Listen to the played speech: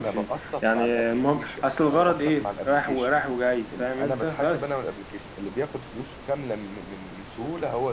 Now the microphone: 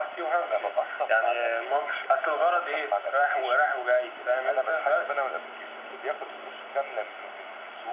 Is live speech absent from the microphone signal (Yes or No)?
Yes